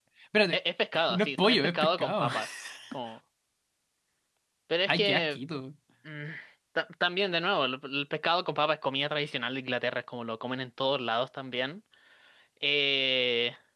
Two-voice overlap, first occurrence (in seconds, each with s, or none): 1.1 s